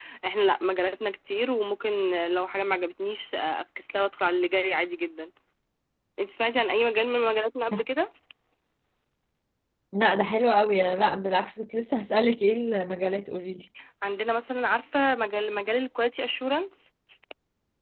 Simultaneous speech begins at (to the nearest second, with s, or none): none